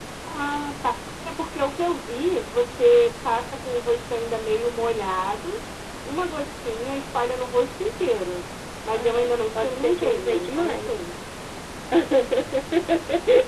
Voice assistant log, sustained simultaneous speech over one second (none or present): present